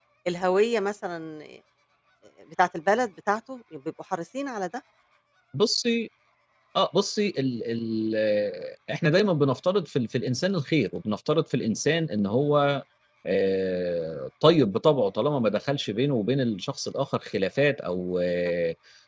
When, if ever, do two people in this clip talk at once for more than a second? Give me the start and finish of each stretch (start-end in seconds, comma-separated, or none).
none